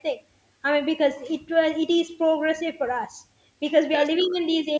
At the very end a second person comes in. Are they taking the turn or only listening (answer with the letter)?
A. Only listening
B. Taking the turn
A